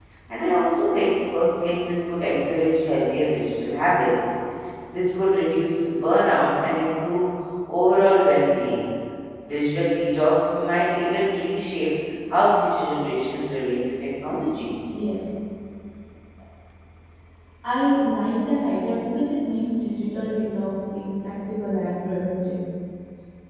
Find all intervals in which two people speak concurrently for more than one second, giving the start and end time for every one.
none

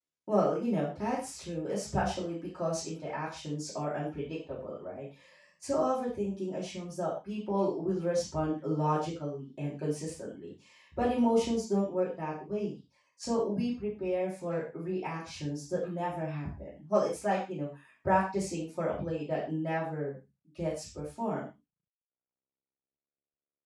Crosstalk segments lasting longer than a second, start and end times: none

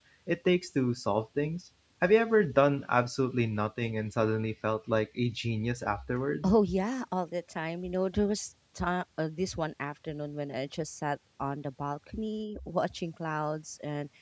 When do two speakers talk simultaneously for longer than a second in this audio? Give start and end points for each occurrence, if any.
none

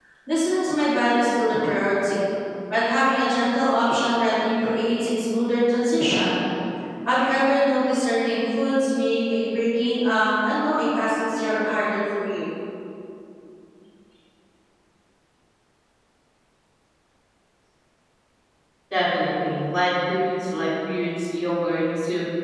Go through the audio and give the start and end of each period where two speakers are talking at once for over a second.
none

